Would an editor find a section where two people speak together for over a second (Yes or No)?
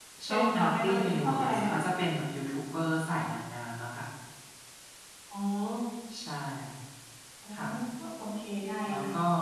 Yes